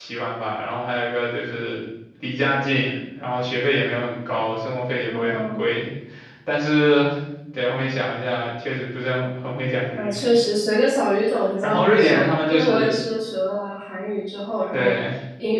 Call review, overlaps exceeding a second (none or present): present